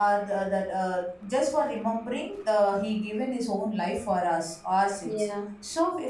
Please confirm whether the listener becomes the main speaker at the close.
No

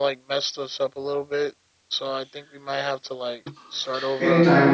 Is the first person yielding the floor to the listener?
Yes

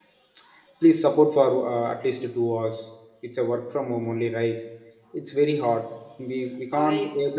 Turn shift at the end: No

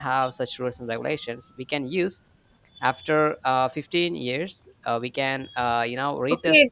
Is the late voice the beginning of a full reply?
Yes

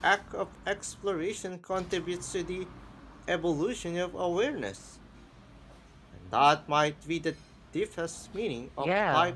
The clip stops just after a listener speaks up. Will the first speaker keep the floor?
No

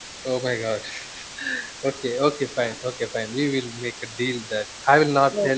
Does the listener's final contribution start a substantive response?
No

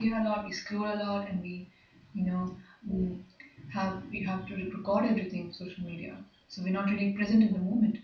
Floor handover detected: No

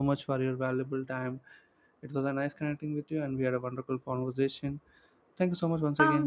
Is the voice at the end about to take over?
Yes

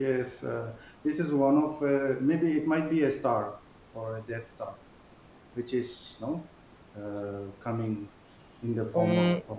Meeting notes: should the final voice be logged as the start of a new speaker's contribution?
Yes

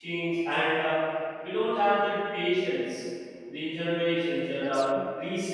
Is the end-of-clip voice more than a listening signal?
No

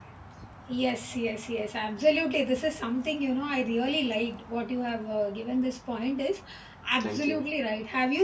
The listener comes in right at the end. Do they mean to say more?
No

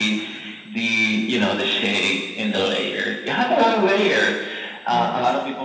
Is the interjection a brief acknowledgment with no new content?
Yes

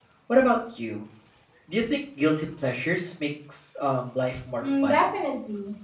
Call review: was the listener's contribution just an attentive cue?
No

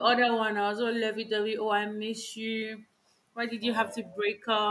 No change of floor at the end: Yes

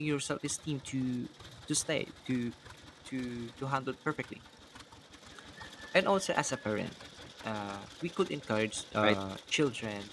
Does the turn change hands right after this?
No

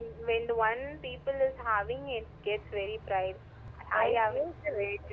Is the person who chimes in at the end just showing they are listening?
No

